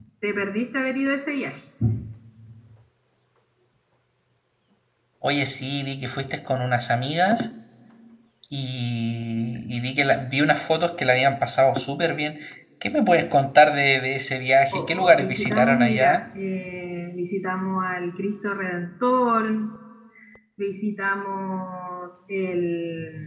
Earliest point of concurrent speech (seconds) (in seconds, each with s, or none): 14.7 s